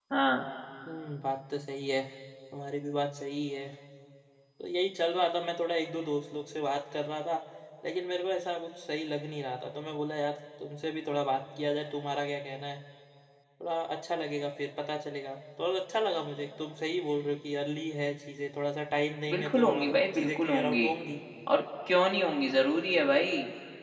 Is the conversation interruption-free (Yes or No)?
No